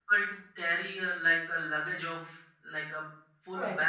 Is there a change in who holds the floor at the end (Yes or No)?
No